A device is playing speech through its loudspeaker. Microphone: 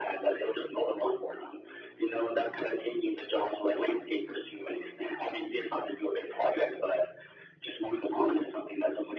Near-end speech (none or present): none